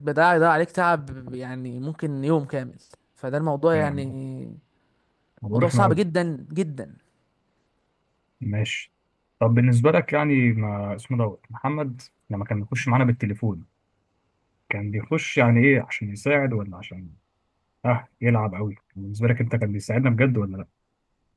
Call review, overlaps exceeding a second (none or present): none